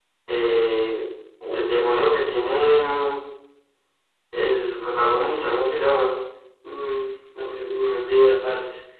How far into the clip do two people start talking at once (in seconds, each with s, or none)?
none